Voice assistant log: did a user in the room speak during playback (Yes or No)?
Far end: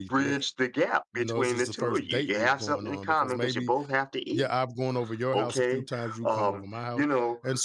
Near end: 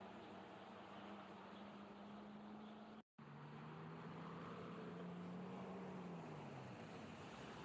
No